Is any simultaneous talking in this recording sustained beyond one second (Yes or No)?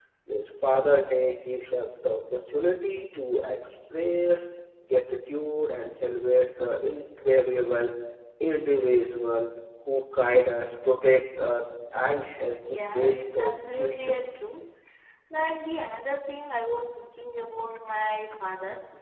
Yes